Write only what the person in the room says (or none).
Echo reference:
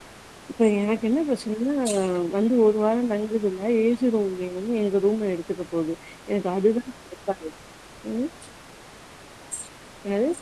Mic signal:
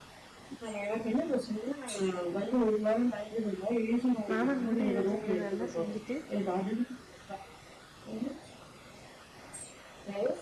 மாமாக்கு மட்டு எது செய்யறதனா செஞ்சுட்டு